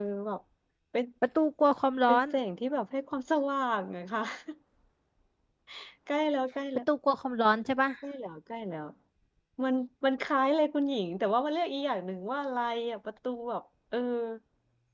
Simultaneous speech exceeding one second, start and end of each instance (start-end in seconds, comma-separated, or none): none